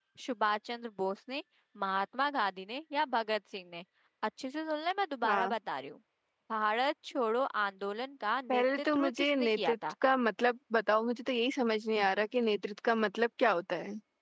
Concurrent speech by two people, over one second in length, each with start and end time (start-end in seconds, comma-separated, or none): 8.5-9.7